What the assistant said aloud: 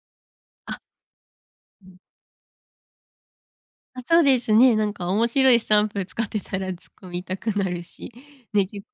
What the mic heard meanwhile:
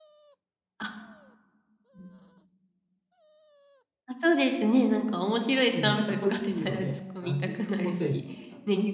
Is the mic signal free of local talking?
No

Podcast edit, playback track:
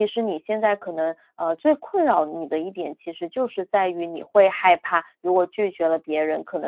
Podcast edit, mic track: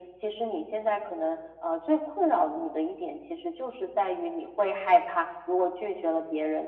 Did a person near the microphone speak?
No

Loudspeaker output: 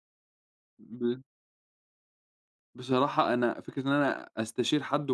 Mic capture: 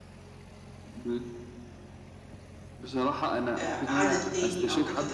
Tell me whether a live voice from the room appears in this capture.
Yes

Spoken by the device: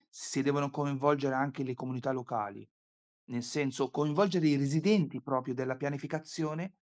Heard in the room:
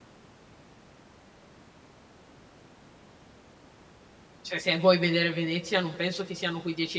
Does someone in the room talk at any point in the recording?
Yes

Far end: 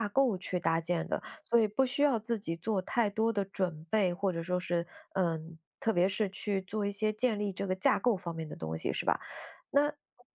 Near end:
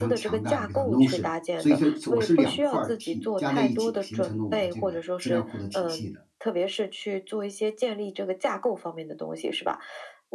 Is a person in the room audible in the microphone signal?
Yes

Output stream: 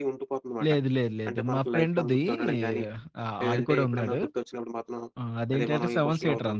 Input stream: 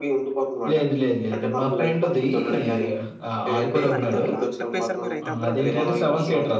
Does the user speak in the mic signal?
Yes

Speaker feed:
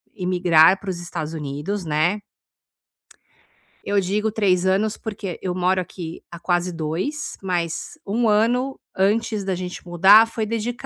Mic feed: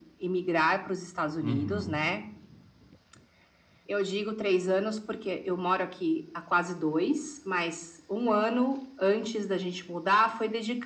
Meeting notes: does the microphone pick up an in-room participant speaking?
Yes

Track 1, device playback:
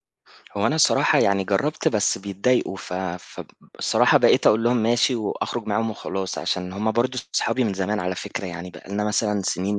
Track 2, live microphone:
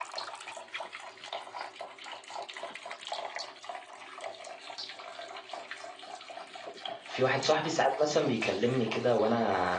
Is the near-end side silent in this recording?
No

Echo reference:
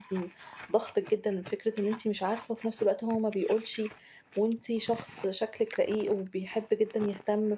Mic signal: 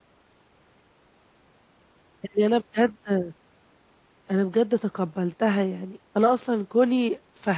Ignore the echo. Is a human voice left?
Yes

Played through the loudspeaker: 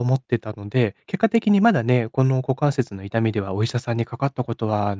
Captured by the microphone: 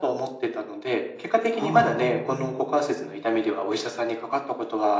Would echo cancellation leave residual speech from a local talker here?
Yes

